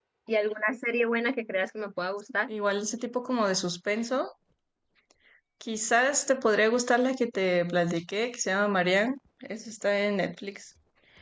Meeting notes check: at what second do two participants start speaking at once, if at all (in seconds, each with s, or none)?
none